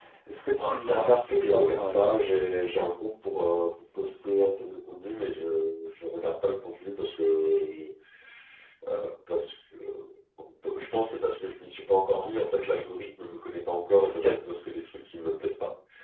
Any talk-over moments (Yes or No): Yes